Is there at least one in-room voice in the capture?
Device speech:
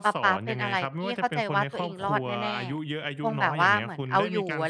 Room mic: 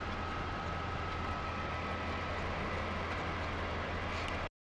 No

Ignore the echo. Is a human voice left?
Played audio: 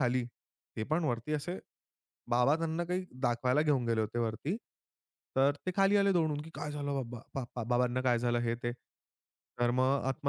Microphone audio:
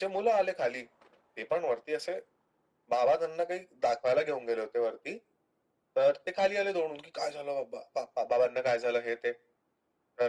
No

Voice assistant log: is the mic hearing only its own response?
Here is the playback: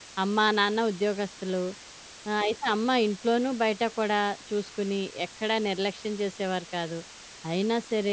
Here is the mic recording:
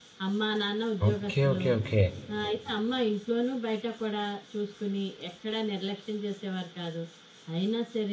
No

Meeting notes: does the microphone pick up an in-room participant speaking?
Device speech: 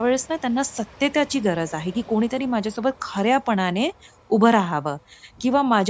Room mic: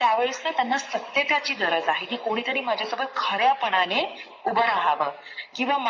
No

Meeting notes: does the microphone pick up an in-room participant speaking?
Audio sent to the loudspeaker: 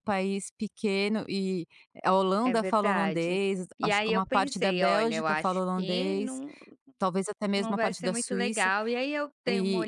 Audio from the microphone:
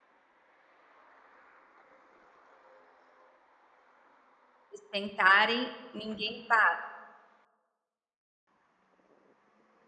Yes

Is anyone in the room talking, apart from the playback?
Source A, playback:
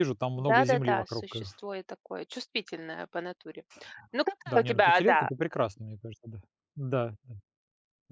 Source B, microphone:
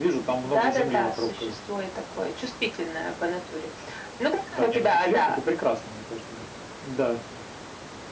No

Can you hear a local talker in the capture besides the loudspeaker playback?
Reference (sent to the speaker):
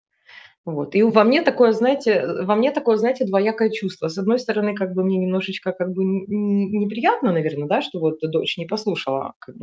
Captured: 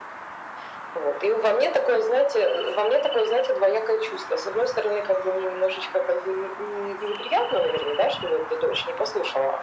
No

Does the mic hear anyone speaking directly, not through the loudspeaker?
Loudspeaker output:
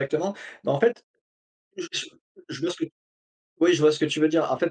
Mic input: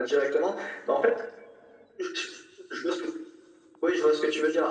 No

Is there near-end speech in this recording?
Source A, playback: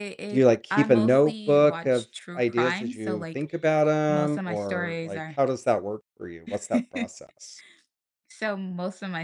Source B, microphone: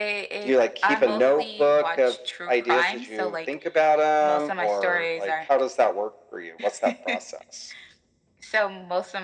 No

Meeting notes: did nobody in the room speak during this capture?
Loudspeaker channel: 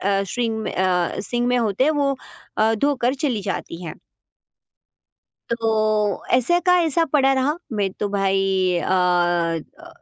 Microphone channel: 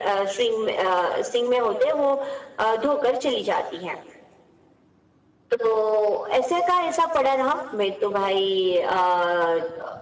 Yes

